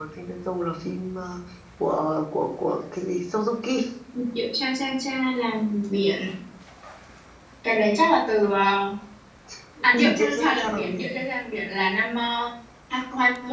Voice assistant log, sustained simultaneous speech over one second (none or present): present